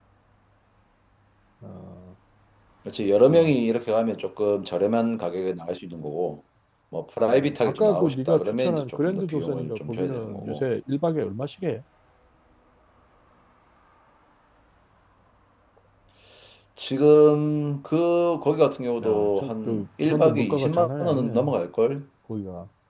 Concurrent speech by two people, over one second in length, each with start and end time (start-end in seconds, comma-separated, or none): 7.3-10.6, 19.0-21.5